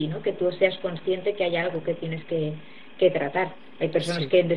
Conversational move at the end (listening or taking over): listening